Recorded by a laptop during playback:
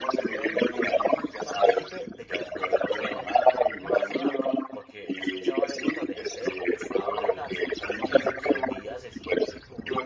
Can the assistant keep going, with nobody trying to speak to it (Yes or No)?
No